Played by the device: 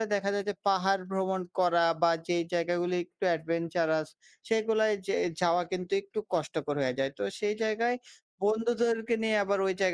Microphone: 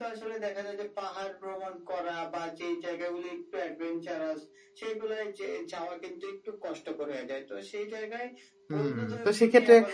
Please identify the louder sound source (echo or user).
user